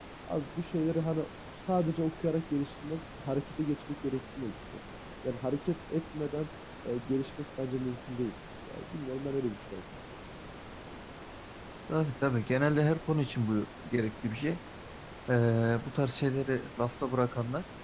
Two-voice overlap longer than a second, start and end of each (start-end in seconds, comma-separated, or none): none